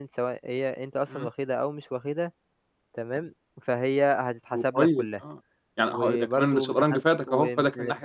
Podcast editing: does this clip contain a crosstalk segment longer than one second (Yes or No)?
Yes